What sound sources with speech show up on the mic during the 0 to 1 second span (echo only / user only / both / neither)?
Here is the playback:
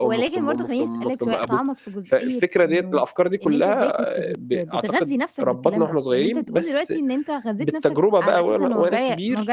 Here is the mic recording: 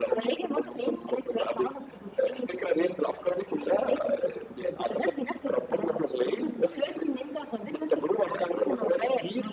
echo only